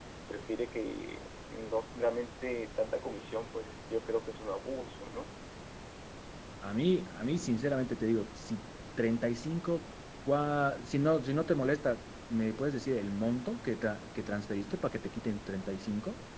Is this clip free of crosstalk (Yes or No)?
Yes